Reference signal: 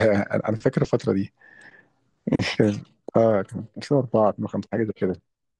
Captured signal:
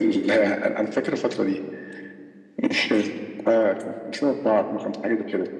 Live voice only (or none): none